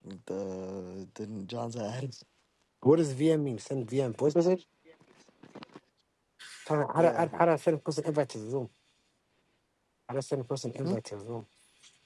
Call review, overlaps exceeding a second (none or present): none